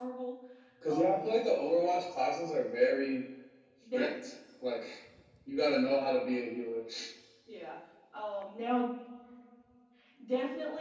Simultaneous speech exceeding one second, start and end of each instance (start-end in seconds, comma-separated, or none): none